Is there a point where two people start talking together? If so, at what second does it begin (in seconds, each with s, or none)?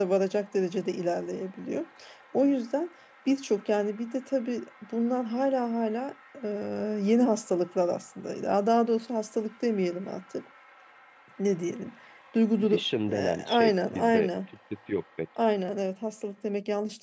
12.7 s